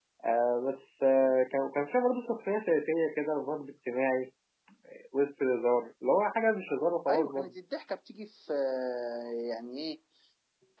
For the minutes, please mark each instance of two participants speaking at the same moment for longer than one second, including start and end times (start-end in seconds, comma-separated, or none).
none